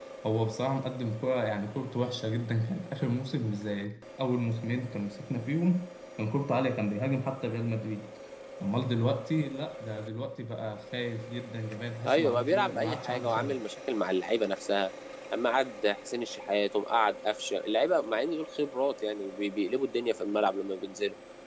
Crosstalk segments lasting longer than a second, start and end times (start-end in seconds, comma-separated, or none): 12.1-13.6